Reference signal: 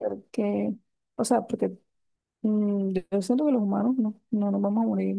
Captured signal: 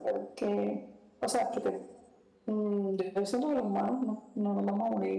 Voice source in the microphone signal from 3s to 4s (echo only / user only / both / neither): echo only